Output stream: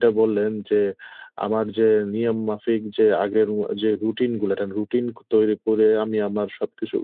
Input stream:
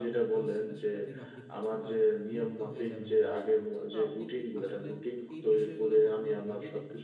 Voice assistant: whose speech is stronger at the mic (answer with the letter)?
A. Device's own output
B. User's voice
A